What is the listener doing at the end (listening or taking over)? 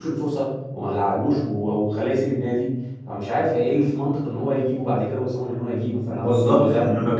taking over